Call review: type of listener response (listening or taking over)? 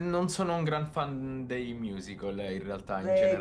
taking over